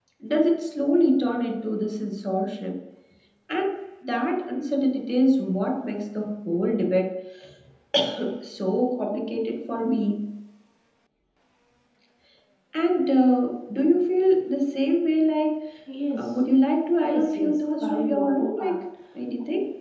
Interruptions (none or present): present